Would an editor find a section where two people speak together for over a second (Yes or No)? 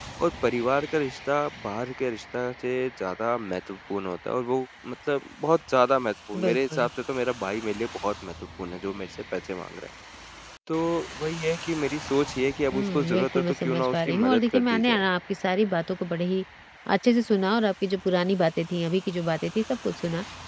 Yes